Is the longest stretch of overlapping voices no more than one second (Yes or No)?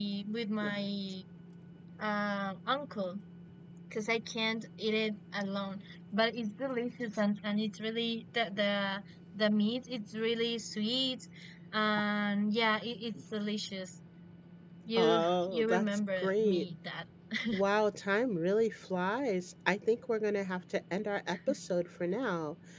No